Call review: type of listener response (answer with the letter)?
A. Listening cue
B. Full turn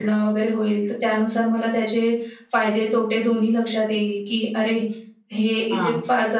A